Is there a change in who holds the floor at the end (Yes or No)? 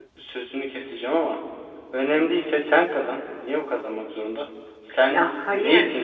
No